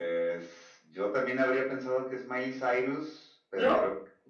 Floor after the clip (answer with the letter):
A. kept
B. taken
A